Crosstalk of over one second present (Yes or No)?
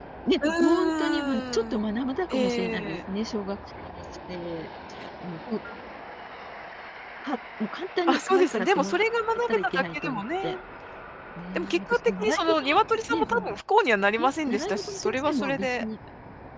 Yes